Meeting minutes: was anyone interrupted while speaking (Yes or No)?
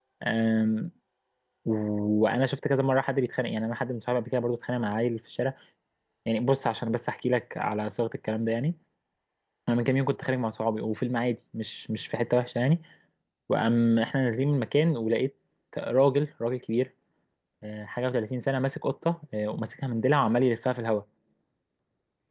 No